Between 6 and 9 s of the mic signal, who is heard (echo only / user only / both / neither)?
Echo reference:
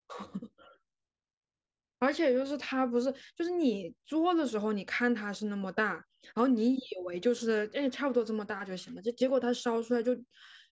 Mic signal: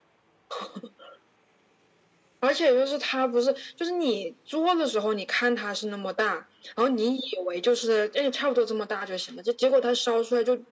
echo only